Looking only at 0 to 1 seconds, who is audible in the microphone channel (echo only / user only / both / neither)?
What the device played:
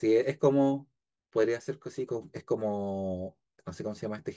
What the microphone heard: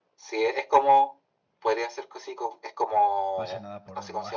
echo only